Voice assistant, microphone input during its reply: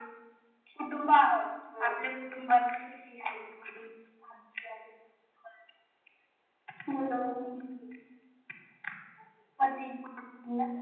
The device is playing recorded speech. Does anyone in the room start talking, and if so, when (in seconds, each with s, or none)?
none